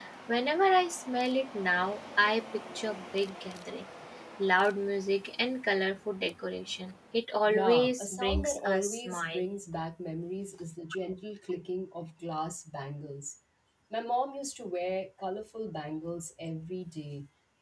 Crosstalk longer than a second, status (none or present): present